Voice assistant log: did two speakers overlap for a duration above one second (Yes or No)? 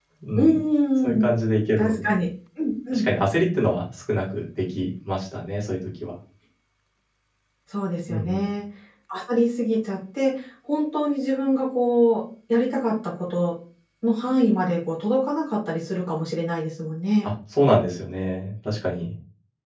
No